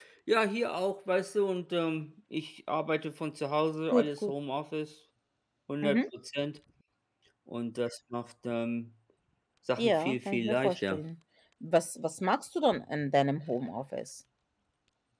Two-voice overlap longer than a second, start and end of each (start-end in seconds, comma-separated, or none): 9.8-11.0